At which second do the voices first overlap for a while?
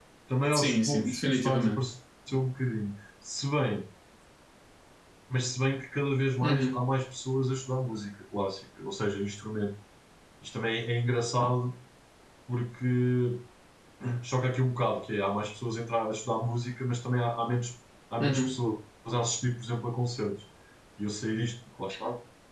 0.5 s

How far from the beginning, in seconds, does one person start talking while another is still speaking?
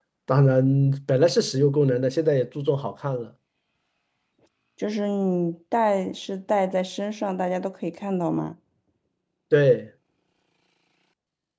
none

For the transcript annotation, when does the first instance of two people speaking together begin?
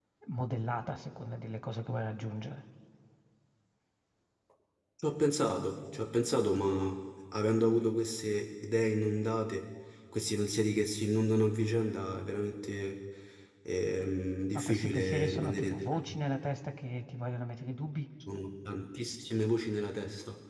14.5 s

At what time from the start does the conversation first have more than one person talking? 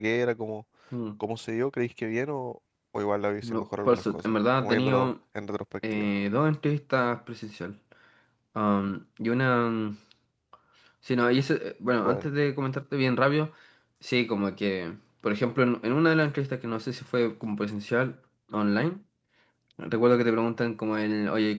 3.4 s

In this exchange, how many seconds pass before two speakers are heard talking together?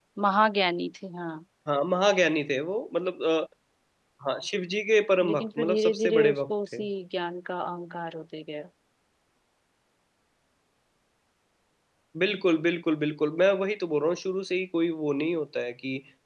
5.2 s

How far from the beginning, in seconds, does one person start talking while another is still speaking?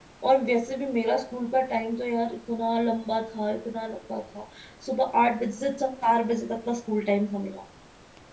none

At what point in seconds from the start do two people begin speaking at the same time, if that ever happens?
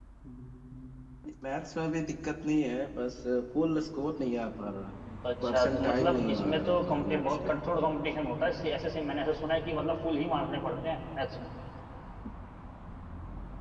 5.4 s

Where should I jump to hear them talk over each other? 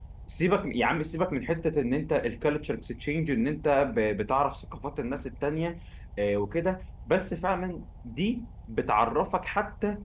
none

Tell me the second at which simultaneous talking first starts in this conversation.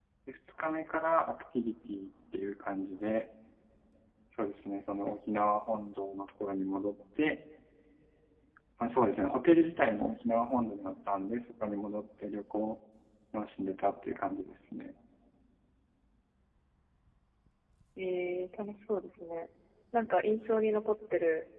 none

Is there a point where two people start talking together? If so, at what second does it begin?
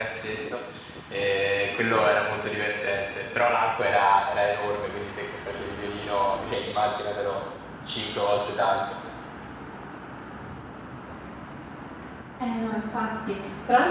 none

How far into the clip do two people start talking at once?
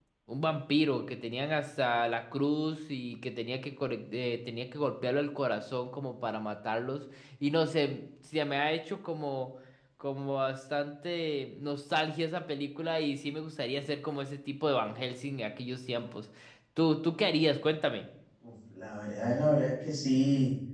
none

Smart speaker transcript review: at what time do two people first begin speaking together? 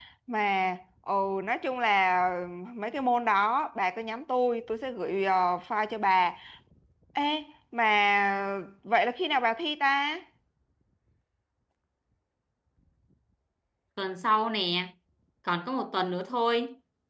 none

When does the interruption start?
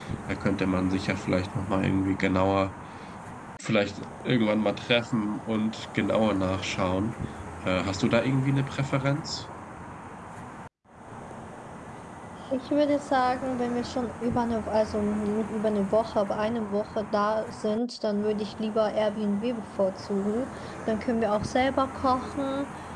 none

